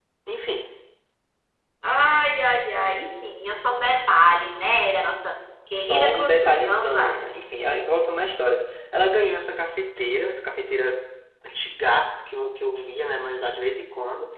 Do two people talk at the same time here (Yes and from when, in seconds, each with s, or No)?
Yes, from 5.7 s